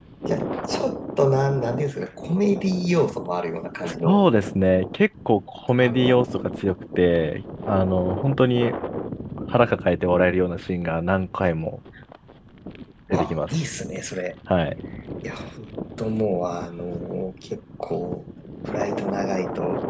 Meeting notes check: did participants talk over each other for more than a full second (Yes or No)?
No